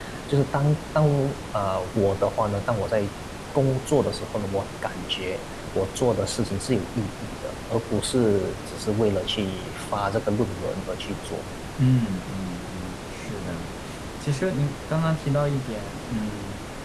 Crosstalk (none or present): none